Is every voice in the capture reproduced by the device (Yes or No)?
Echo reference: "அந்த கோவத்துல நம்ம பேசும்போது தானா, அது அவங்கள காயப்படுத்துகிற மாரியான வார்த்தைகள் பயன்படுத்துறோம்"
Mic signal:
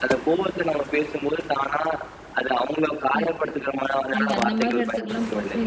No